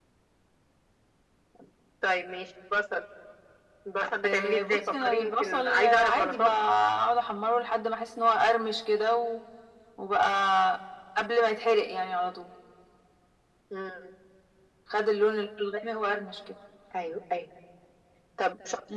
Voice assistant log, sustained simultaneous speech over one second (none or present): present